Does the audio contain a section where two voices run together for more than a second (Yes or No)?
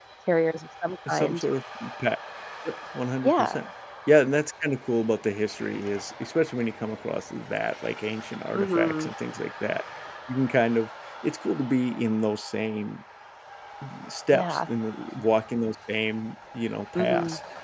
No